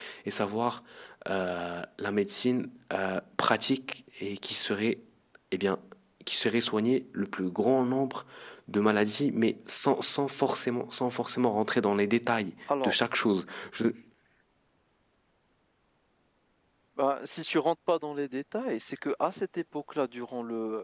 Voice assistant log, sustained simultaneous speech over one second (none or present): none